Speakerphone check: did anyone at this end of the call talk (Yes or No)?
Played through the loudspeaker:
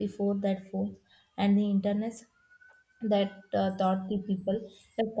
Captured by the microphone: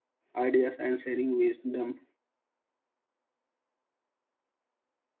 Yes